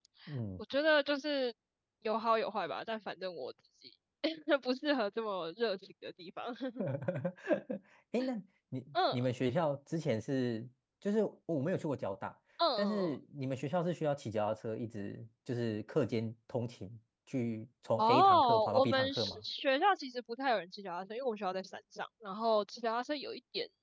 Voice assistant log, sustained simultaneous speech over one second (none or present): present